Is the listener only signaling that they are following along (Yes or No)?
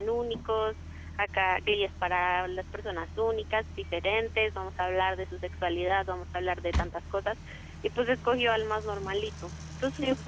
No